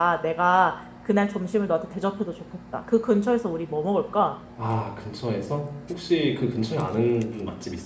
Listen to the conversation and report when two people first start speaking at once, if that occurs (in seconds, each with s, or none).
none